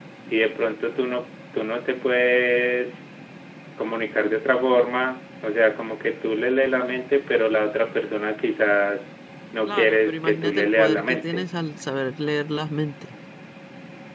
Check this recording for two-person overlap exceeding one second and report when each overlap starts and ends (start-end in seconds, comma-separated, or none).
9.7-11.4